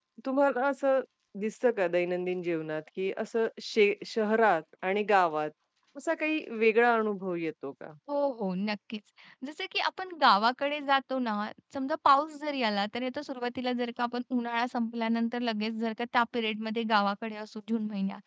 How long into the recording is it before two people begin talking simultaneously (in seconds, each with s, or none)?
none